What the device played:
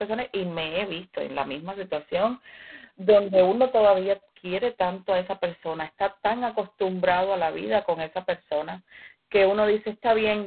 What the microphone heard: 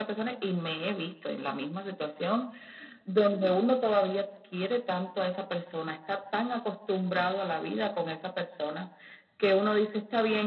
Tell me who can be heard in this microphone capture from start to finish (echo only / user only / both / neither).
echo only